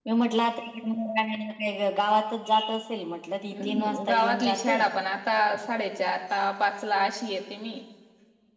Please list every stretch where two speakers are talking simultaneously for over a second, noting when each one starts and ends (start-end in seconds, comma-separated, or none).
3.5-4.8